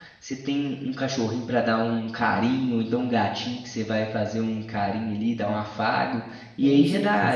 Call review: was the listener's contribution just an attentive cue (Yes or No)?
Yes